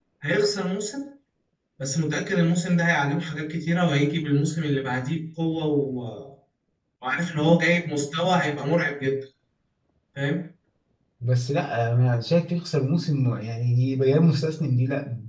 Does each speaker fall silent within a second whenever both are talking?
Yes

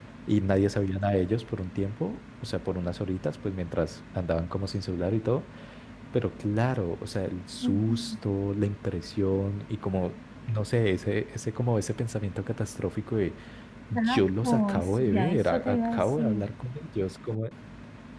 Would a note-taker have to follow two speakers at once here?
Yes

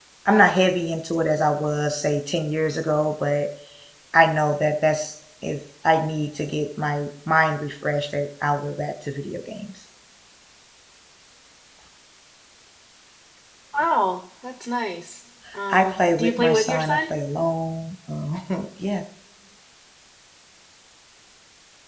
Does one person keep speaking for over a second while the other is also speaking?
Yes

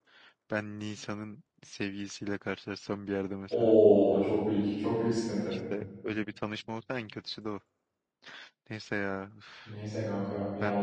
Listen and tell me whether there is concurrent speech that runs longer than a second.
No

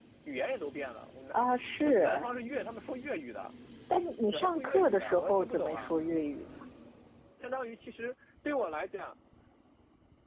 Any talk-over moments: Yes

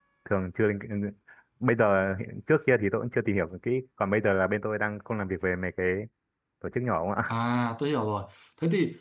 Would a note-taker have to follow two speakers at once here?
No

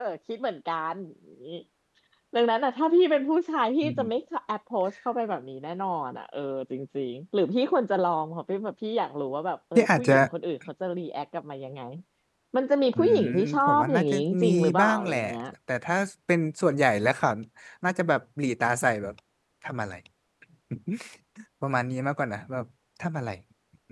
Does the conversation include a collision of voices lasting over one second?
Yes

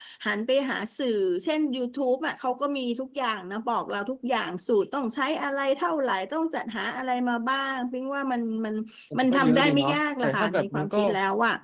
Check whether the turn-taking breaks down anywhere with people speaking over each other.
Yes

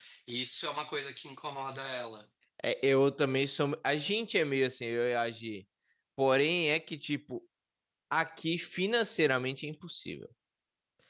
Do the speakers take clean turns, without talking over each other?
Yes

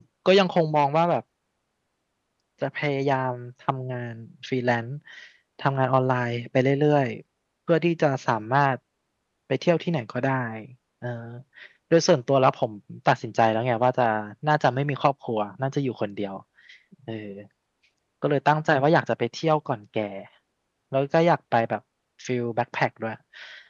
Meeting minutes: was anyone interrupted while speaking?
No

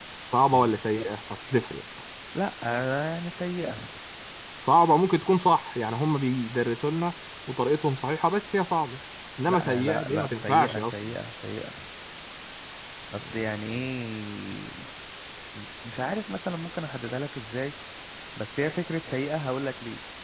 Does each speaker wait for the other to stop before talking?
No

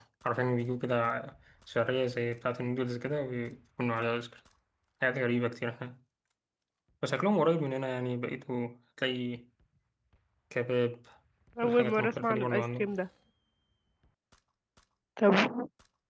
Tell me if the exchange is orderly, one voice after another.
No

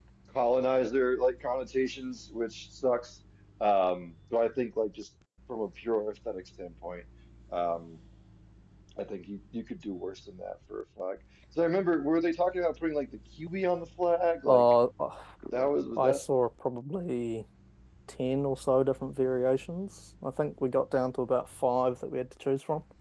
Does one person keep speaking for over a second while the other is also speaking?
No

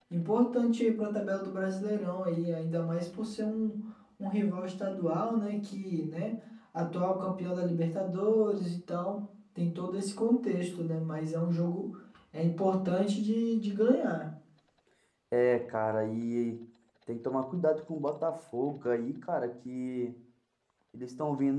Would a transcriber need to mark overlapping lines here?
No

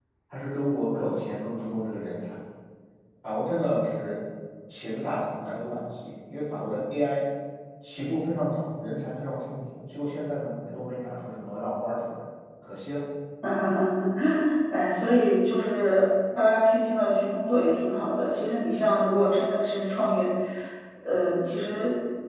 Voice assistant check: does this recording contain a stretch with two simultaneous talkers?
No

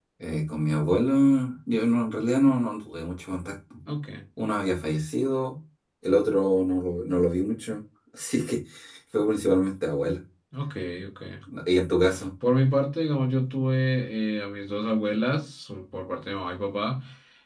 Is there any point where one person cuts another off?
No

